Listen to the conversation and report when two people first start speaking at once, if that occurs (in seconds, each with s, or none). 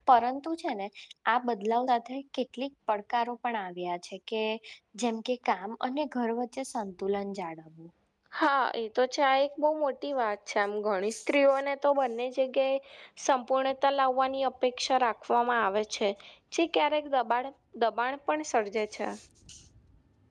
none